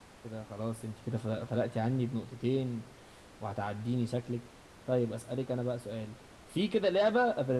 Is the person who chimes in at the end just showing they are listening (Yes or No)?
Yes